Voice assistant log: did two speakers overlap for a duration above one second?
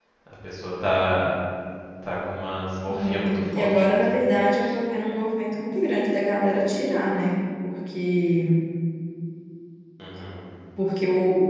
Yes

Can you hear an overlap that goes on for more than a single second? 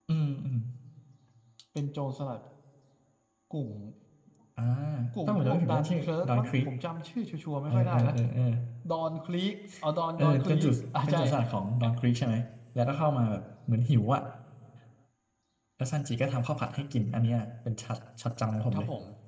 Yes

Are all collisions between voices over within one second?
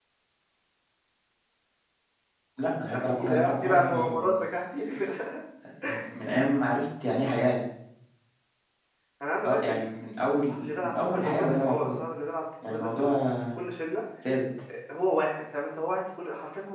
No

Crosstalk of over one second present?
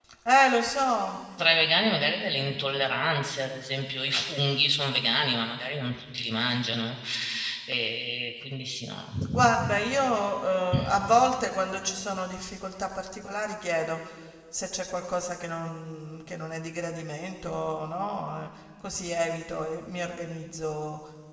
No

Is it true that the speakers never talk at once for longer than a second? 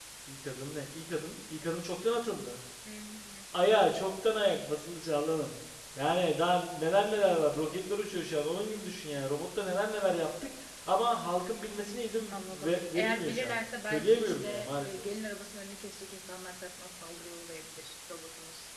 No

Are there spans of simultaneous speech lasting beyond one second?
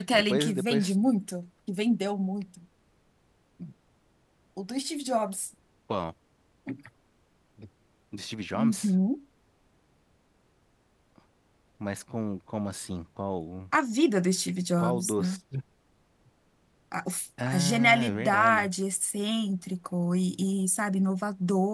Yes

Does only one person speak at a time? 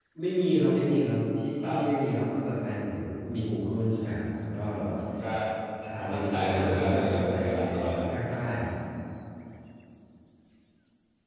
No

